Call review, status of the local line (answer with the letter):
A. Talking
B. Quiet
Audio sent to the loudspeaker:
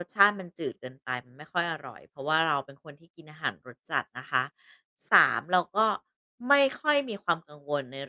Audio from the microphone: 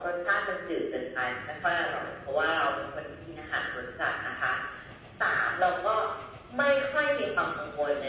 B